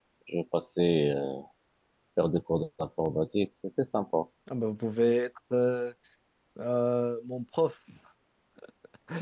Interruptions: none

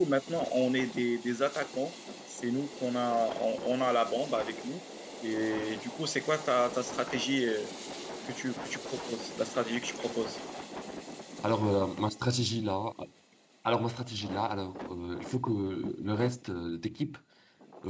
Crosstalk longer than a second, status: none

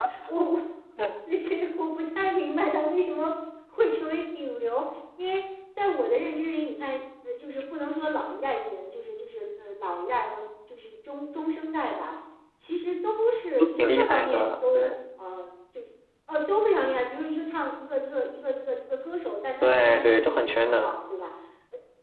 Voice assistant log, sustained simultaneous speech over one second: present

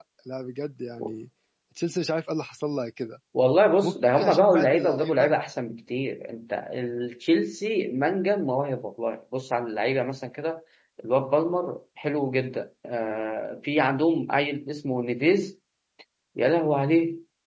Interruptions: present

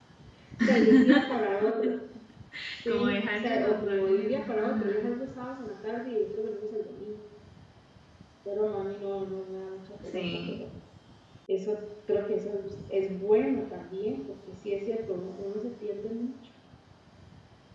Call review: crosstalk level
present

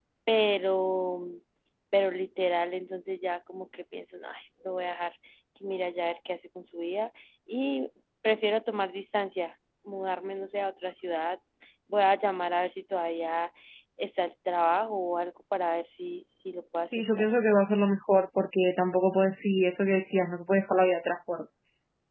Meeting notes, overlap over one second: none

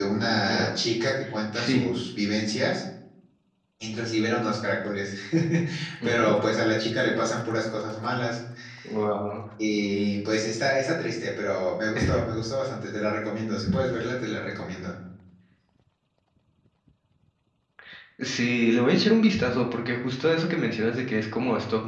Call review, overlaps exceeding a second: none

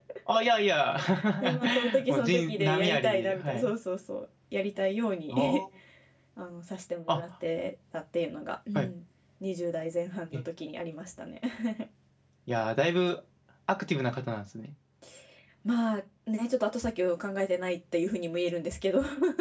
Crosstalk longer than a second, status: present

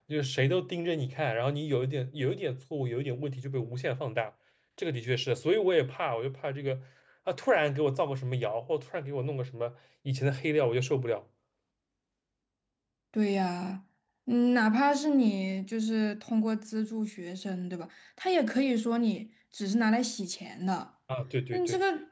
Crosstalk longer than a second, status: none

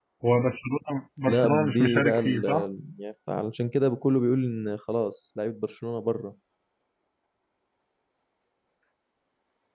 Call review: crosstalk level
present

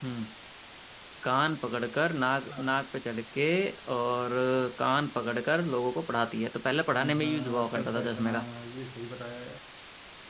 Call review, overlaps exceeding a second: present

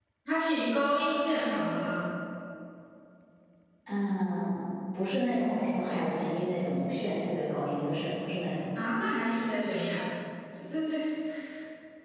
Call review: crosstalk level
none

